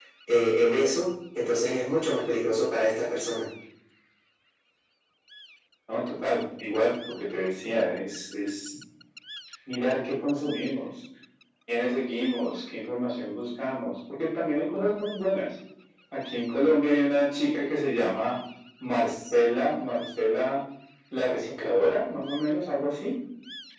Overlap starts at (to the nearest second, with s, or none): none